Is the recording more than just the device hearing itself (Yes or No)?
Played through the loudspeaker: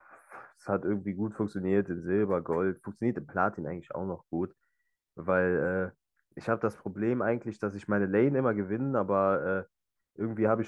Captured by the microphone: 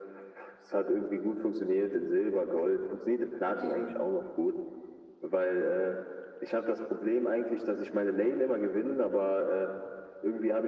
Yes